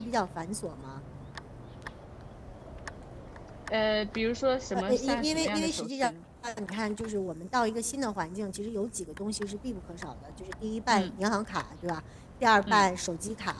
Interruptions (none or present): present